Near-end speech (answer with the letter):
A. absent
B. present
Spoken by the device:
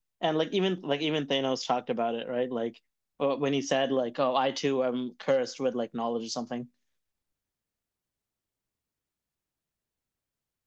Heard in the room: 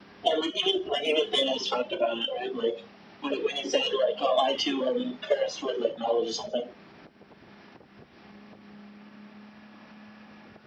A